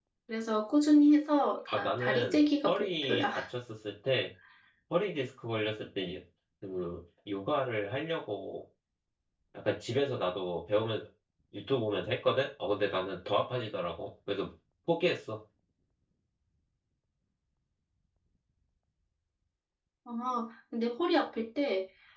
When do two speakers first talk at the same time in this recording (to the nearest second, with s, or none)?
2 s